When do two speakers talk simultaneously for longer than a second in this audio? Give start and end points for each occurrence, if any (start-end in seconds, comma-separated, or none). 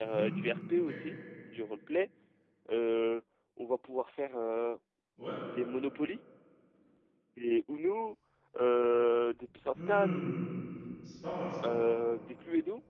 none